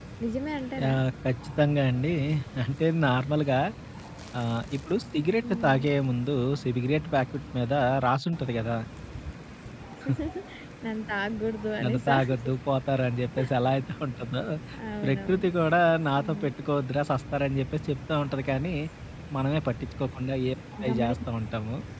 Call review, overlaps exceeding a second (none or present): none